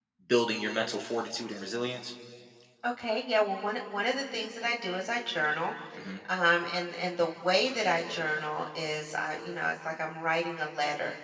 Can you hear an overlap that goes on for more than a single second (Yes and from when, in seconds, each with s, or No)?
No